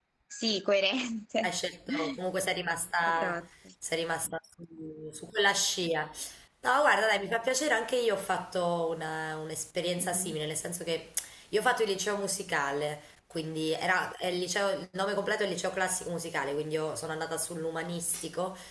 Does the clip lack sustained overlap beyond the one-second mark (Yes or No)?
Yes